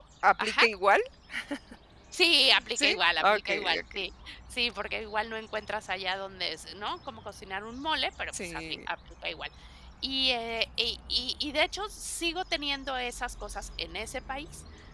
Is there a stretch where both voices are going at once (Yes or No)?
Yes